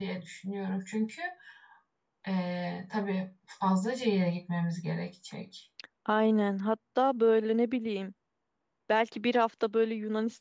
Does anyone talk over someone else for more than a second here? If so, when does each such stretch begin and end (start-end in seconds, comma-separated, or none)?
none